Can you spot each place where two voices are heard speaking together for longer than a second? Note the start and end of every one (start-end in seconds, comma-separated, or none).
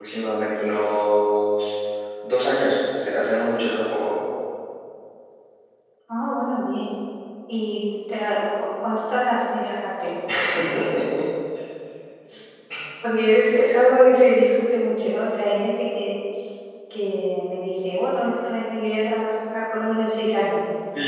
none